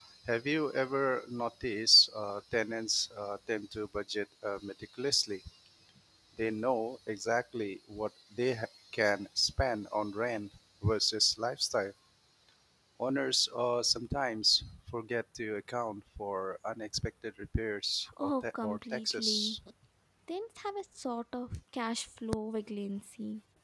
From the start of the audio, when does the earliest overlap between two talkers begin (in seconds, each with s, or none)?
18.2 s